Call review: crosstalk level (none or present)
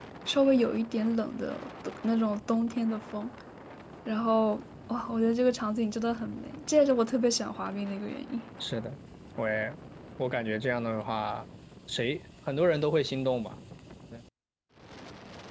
none